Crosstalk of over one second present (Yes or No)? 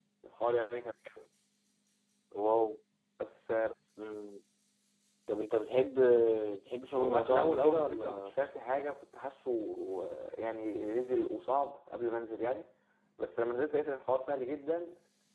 Yes